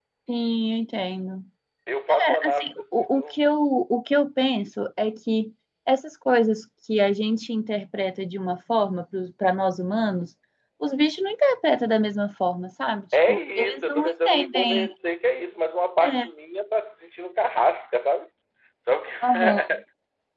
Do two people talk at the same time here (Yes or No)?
Yes